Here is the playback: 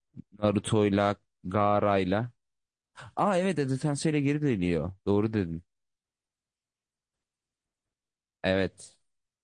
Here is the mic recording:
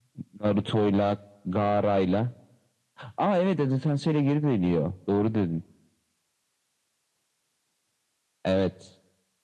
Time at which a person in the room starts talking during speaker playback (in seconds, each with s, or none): none